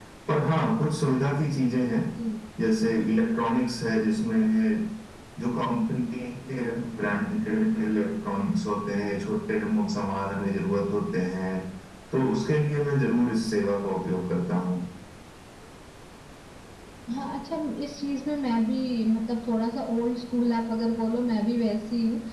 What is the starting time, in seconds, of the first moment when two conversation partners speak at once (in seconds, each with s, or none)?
none